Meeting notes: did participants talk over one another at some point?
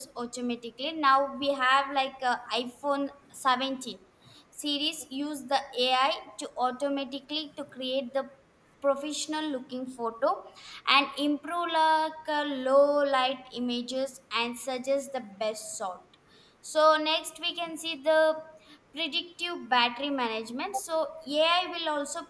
No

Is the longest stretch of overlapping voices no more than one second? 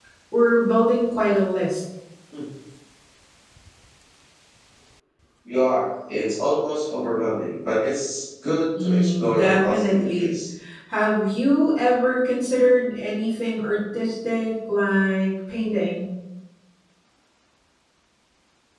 No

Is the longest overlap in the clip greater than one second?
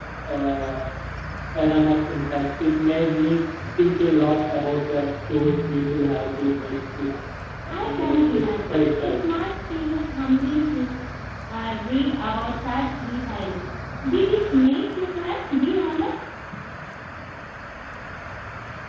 Yes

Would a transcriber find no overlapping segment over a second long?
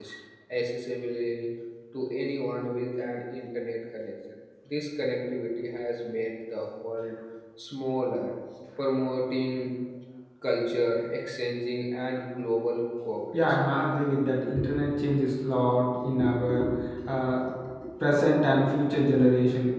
Yes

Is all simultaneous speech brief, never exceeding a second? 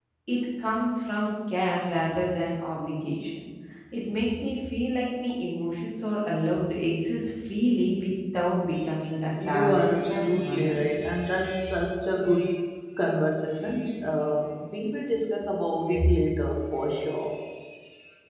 No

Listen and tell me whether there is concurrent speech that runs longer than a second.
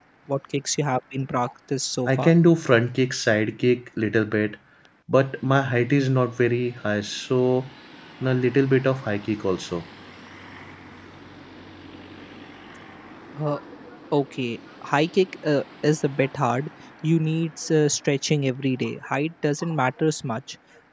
No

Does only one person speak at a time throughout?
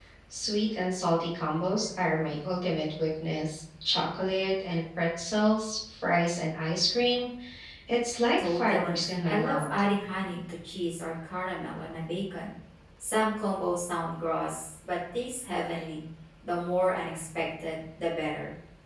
No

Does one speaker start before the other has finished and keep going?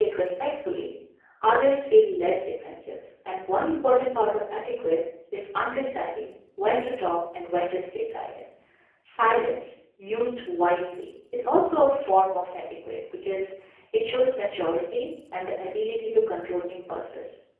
No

